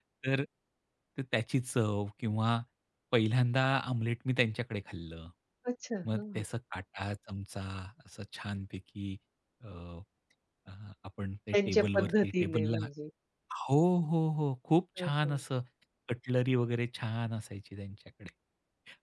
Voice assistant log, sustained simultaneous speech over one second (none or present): present